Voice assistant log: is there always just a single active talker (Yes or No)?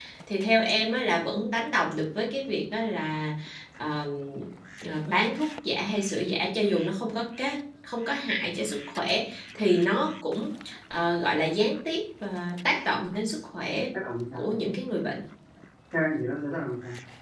Yes